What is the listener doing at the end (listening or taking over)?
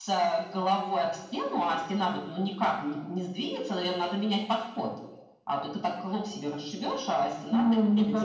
taking over